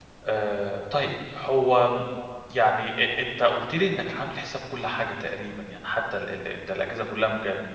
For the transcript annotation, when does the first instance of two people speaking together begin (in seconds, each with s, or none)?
none